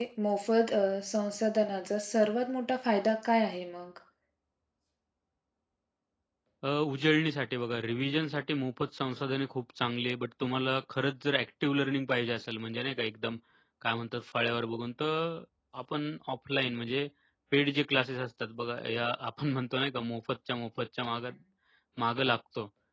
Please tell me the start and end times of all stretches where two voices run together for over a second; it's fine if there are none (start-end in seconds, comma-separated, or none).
none